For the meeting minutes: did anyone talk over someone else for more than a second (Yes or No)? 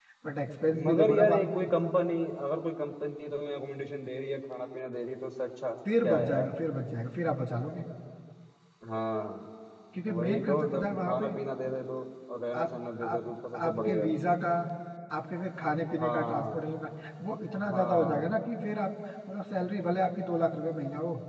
Yes